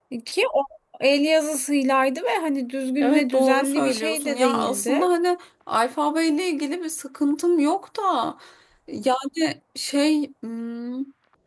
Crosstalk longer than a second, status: present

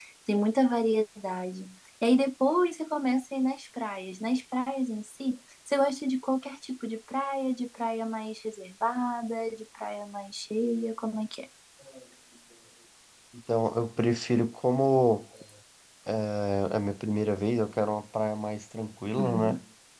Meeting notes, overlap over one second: none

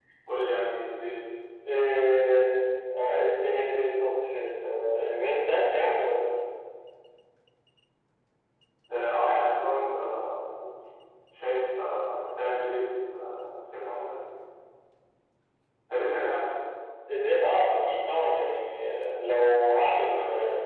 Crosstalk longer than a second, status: none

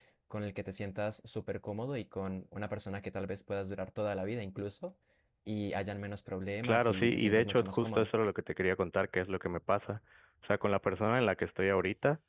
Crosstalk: present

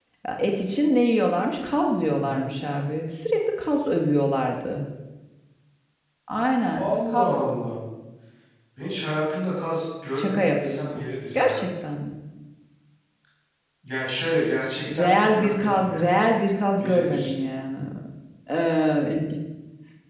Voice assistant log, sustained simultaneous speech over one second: present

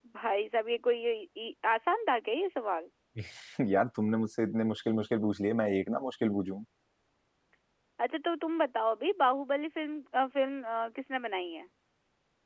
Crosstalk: none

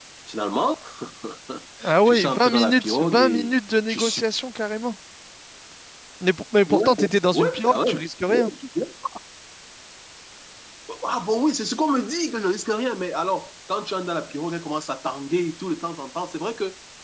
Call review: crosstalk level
present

